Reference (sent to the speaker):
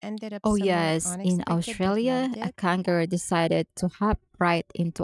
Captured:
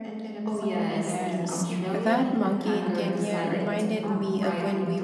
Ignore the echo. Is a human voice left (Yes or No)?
Yes